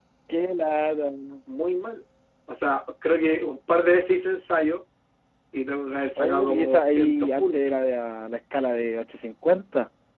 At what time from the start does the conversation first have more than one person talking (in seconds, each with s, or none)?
6.2 s